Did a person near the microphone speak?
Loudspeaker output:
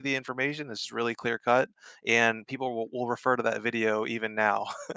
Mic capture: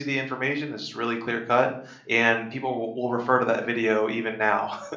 No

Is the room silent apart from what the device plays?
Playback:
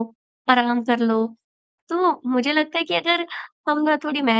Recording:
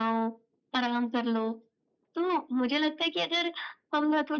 Yes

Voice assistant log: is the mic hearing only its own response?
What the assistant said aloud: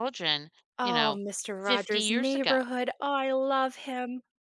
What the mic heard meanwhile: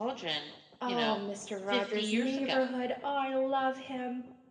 Yes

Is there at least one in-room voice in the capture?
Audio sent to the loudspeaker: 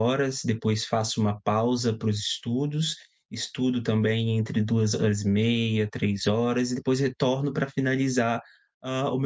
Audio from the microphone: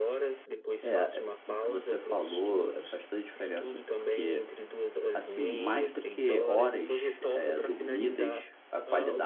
Yes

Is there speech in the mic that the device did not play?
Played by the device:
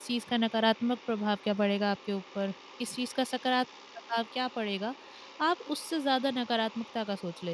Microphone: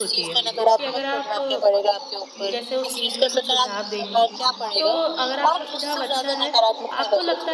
Yes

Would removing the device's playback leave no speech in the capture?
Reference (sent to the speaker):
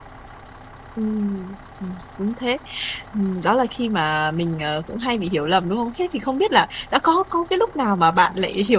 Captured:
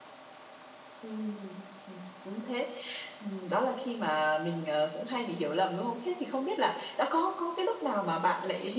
Yes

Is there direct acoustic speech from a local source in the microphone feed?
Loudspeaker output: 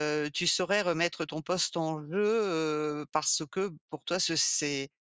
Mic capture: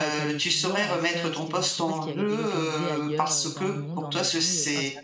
Yes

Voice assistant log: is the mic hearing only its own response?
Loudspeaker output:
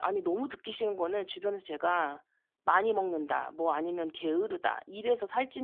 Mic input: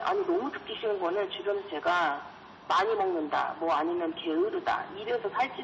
Yes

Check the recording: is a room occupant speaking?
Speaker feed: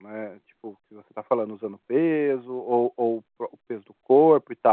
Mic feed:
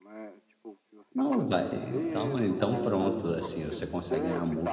Yes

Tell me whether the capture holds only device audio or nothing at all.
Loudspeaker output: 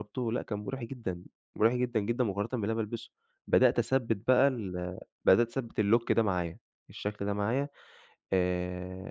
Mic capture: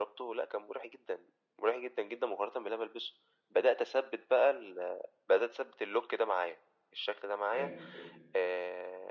No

